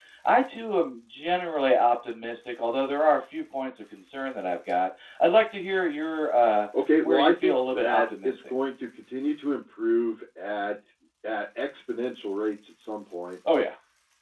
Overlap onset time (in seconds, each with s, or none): 7.0 s